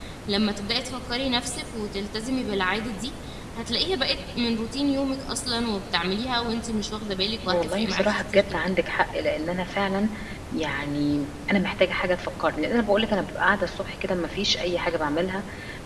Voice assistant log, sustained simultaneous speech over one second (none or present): present